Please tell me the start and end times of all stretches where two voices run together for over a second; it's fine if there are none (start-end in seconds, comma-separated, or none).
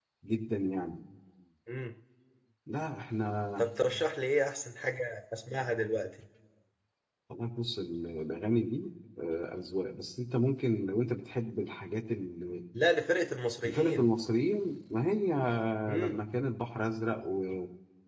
none